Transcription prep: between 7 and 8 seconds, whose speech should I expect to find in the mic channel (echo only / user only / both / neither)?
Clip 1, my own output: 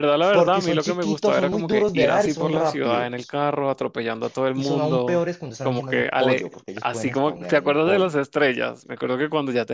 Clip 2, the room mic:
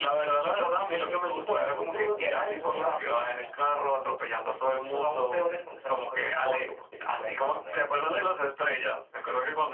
echo only